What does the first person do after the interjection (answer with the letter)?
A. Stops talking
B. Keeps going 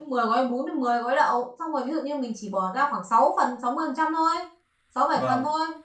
B